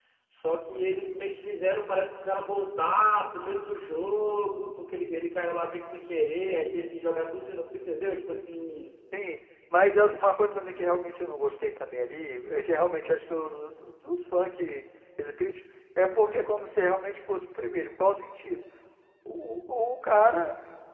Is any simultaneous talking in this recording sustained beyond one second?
No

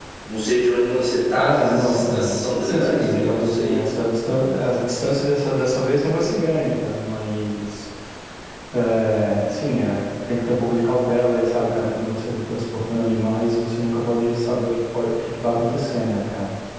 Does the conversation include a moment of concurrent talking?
Yes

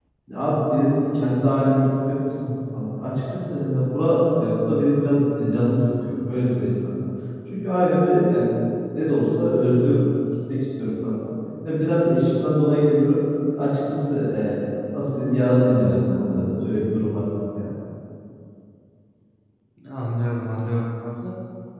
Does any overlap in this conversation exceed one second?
No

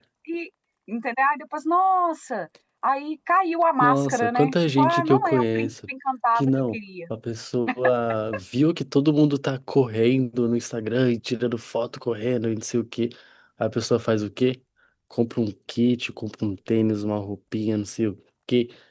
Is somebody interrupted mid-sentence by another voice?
Yes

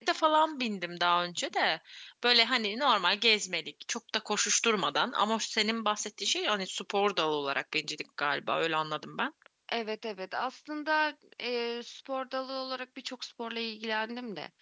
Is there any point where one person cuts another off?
No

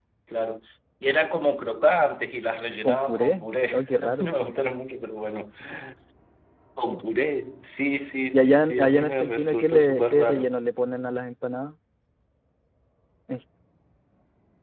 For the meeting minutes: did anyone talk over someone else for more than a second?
Yes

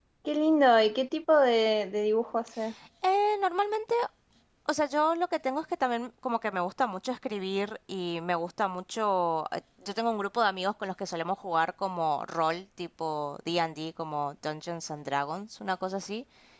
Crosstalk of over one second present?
No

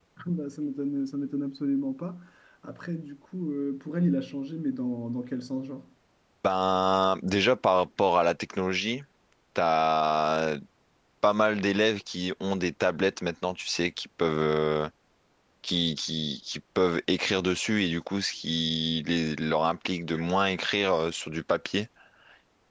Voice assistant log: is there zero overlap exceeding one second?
Yes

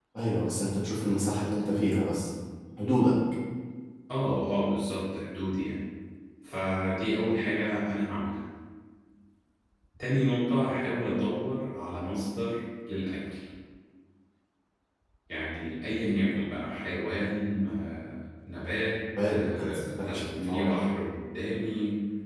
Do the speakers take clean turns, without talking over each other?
No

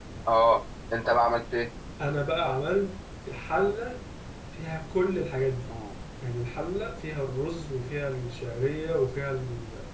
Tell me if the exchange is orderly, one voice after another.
Yes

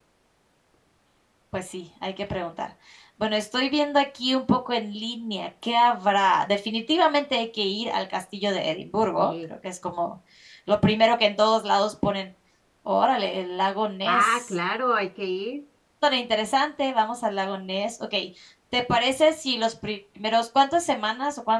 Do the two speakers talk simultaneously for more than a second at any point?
No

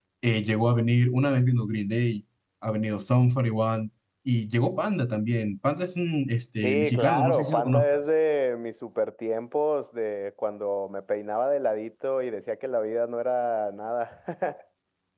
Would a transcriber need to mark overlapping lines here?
Yes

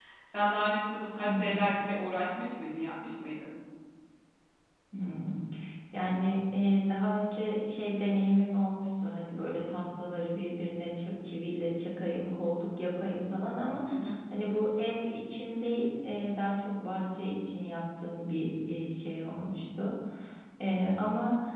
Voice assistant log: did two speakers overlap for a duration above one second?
No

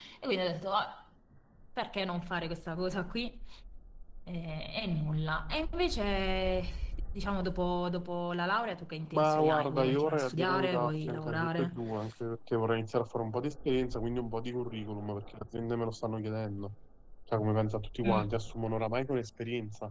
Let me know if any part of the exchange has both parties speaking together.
Yes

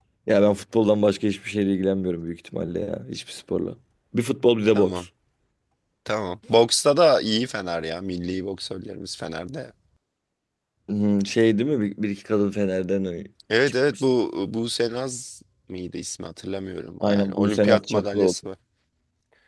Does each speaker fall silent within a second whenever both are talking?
No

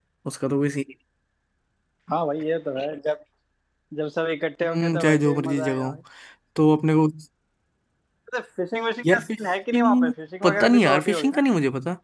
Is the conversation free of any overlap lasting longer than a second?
No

